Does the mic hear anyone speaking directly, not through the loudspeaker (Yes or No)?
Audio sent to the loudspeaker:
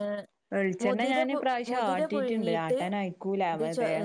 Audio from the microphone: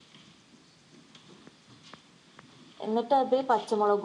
Yes